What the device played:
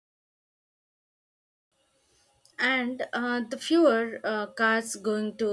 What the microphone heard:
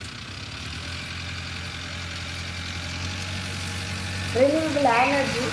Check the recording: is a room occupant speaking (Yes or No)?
Yes